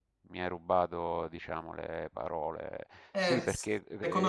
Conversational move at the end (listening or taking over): taking over